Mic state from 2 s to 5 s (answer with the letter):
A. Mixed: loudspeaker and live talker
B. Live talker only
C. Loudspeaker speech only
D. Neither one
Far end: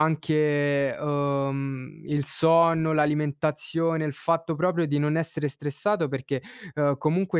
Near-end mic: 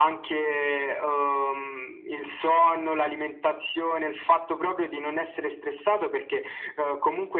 C